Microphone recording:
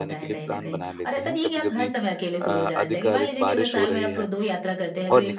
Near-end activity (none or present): present